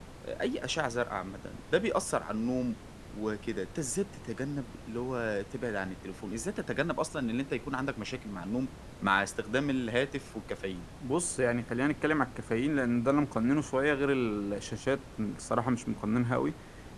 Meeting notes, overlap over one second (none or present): none